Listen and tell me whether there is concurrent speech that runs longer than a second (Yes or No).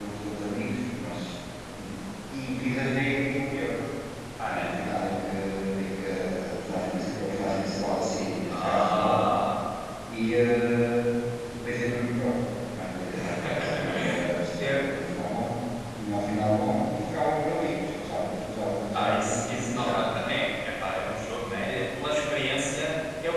Yes